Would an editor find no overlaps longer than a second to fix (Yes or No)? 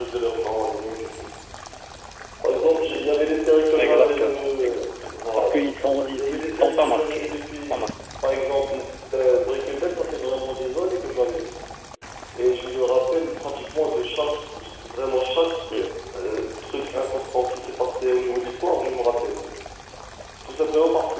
No